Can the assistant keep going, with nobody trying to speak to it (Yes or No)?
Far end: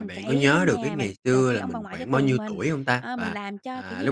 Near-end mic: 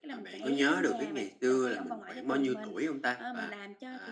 Yes